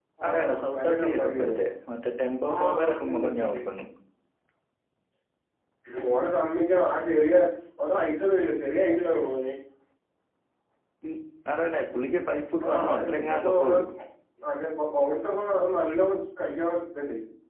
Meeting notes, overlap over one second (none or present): present